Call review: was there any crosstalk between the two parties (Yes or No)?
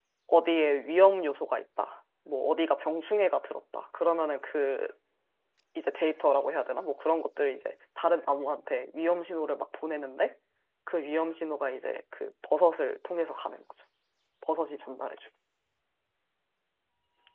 No